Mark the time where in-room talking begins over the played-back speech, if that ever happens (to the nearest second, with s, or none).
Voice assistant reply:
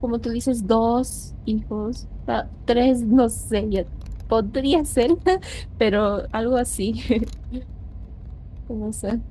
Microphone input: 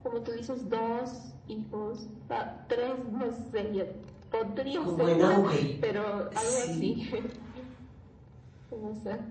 5 s